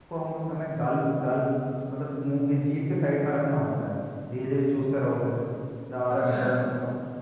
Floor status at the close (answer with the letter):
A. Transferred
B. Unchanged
B